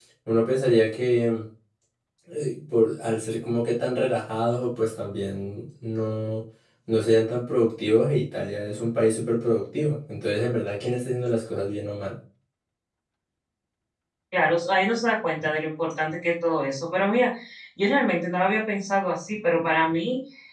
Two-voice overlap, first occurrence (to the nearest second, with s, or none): none